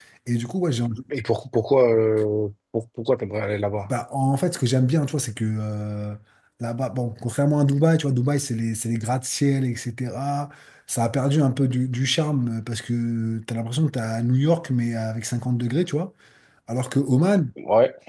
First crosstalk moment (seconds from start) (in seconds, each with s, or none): none